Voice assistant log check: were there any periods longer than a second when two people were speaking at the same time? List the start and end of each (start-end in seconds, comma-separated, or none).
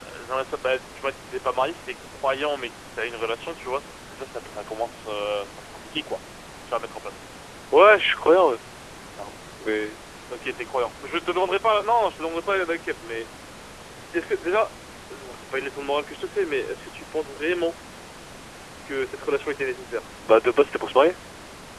none